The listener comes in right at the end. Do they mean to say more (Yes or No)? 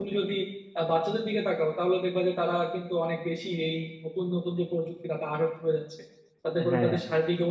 No